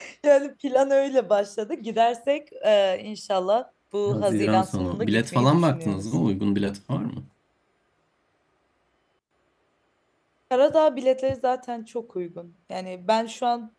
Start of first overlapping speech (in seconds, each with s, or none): 4.1 s